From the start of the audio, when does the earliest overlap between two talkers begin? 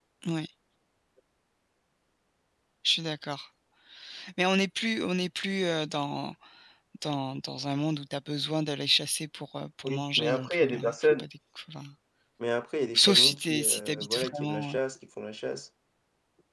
10 s

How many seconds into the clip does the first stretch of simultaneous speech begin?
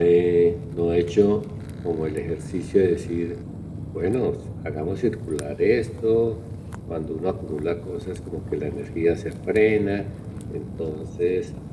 none

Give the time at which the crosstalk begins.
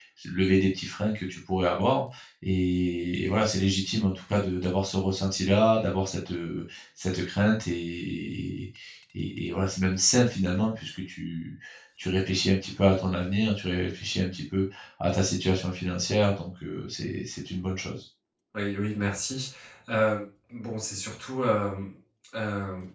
none

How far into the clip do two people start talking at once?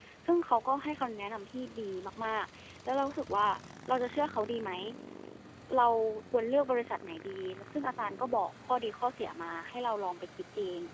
none

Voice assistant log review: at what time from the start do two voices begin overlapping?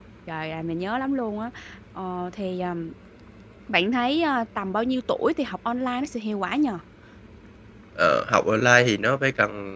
none

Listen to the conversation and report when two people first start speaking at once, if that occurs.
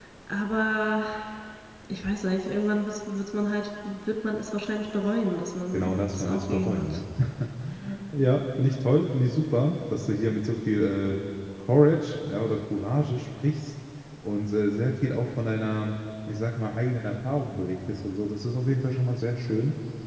6 s

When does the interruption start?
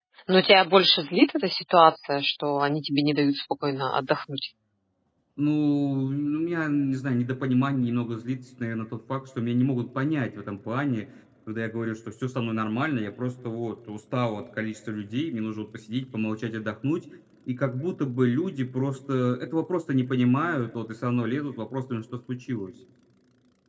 none

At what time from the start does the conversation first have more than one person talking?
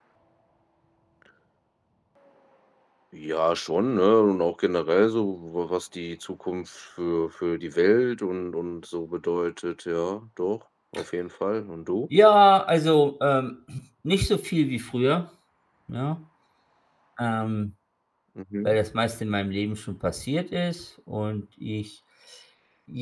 none

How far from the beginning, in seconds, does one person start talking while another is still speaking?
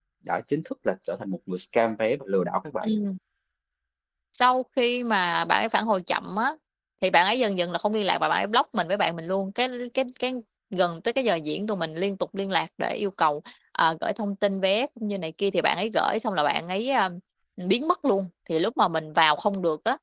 none

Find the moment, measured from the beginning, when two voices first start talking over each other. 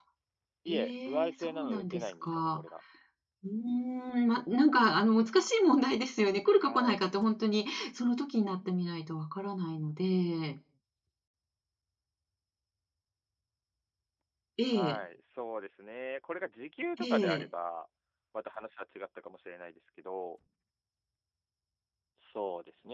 1 s

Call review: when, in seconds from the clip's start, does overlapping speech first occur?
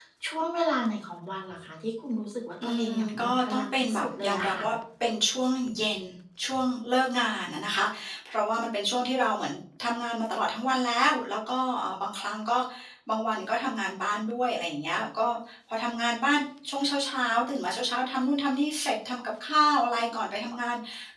3 s

